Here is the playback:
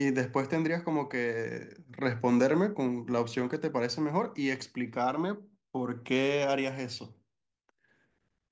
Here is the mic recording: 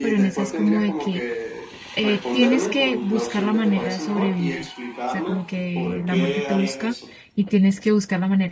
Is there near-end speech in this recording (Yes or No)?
Yes